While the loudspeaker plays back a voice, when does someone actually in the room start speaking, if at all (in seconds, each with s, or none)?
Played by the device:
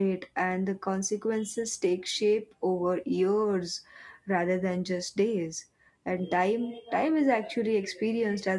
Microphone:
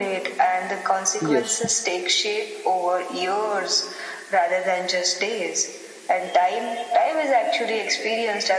1.2 s